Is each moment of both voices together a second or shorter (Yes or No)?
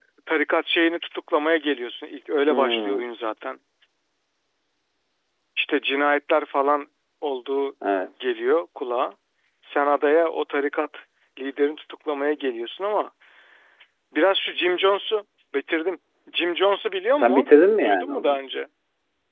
Yes